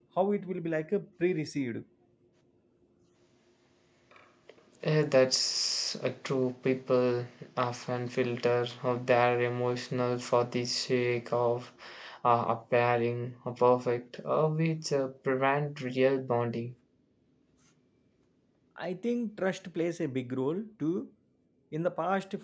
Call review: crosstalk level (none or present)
none